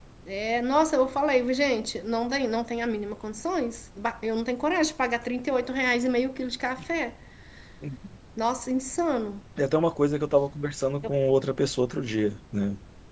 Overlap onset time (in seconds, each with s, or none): none